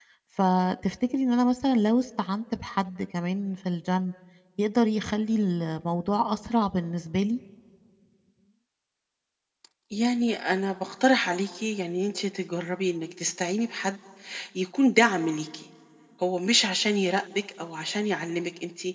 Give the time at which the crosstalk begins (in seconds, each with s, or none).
none